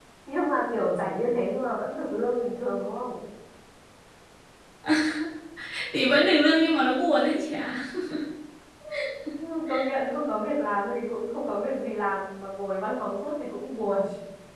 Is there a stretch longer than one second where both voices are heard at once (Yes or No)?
No